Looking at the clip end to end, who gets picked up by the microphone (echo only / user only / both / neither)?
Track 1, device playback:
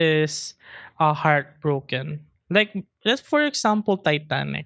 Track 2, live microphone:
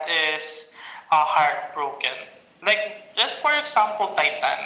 echo only